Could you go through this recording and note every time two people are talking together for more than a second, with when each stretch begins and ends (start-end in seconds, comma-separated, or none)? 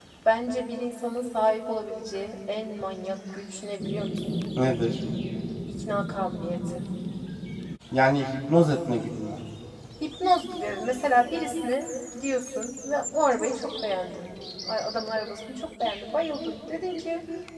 none